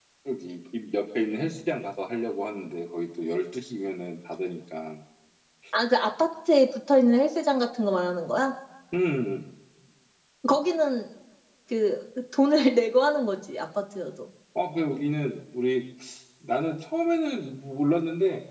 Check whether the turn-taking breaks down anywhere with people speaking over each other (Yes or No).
No